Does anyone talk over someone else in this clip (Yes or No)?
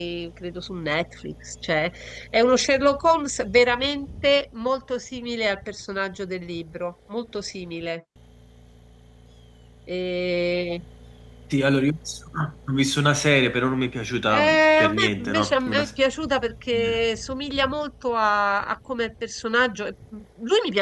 Yes